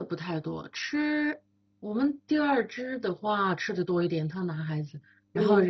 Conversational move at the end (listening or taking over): listening